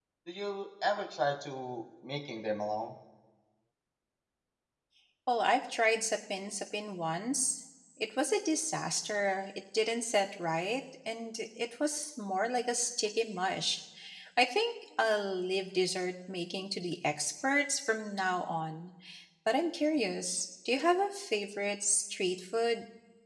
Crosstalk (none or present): none